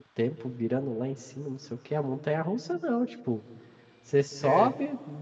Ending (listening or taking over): listening